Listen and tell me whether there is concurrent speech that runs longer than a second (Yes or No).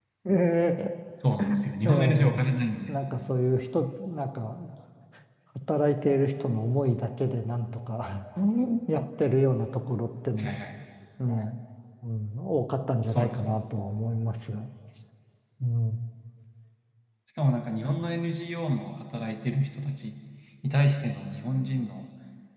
No